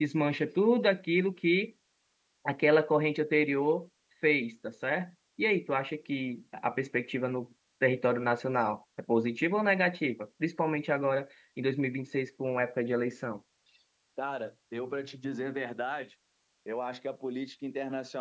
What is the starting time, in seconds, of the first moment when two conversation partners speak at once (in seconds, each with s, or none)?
none